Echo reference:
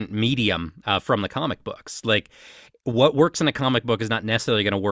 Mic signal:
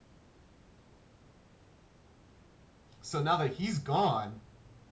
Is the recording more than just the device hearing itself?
Yes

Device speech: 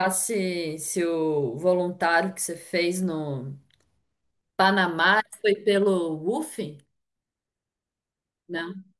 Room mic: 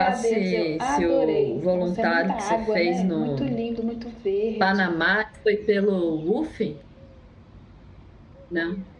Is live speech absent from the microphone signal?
No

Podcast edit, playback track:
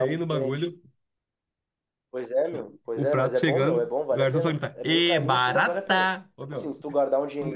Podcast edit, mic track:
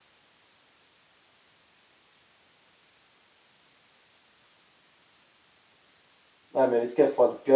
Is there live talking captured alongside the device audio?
Yes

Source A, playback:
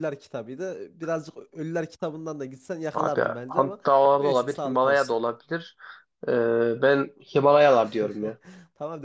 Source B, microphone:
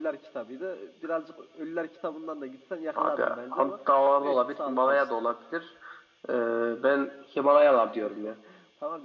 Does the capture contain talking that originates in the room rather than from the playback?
No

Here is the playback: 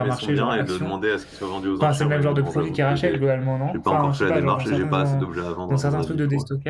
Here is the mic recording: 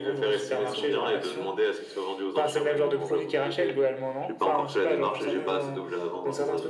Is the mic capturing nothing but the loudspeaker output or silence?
Yes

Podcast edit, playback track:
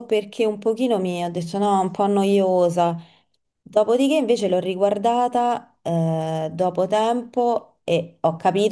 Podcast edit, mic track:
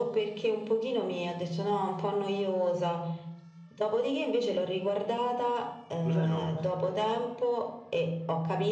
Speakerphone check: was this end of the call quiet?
No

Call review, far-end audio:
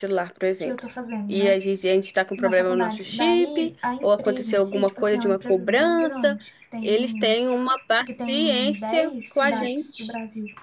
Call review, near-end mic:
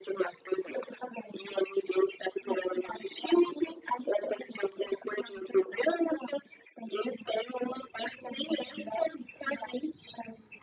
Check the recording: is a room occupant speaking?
No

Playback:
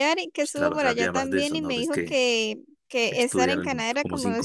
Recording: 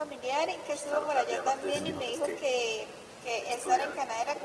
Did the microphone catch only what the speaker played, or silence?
No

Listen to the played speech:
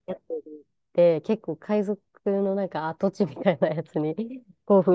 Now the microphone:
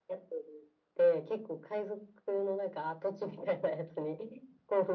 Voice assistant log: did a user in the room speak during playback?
No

